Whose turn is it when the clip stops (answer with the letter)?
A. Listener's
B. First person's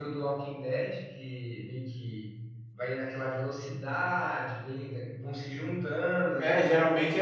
A